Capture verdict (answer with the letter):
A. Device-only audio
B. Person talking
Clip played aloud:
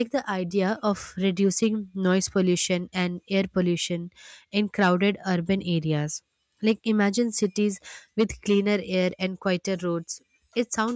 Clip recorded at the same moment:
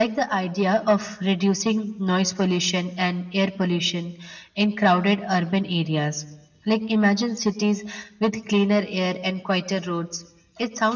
A